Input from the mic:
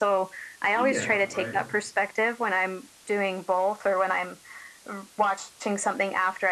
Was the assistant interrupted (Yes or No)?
Yes